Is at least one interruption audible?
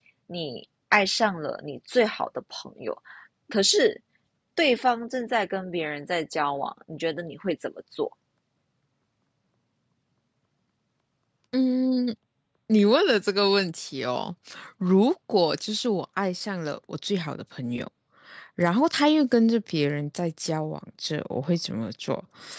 No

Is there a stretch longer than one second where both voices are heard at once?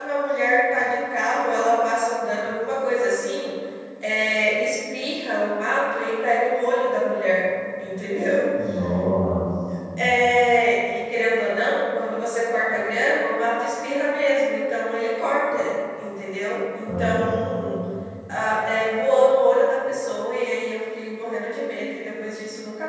No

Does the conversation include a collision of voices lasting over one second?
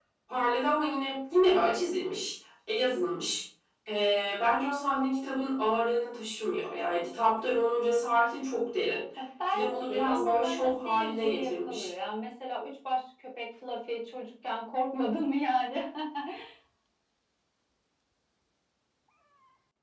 Yes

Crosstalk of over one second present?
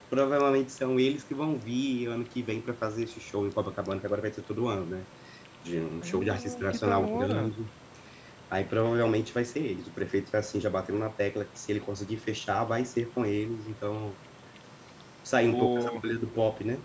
Yes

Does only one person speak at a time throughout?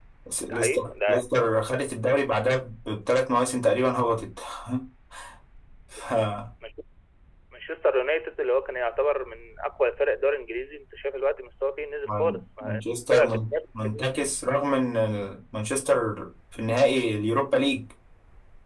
No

